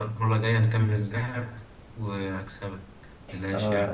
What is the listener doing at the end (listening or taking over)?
taking over